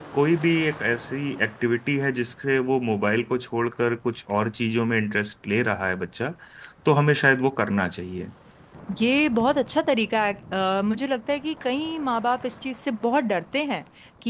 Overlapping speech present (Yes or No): No